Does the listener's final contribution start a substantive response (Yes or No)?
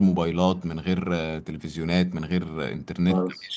Yes